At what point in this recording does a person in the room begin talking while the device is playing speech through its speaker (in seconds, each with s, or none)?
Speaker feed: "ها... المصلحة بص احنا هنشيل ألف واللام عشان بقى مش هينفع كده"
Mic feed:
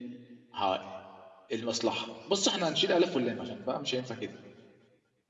none